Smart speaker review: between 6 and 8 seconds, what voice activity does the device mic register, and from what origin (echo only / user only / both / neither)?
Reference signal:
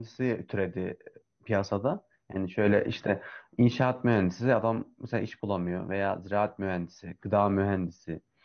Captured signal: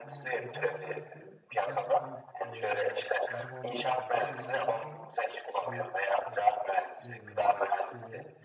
both